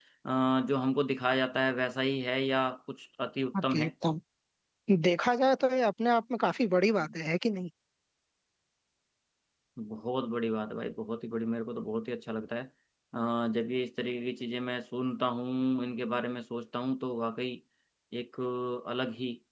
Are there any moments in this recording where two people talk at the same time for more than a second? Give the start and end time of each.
none

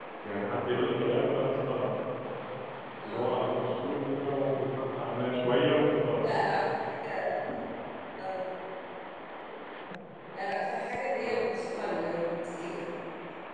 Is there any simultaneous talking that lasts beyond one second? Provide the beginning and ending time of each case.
none

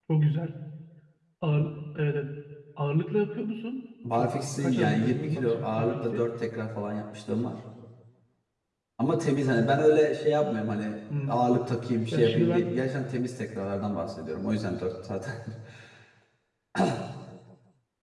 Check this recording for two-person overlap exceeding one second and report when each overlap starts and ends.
4.1-6.2

